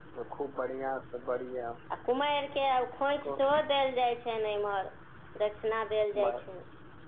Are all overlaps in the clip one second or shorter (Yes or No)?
Yes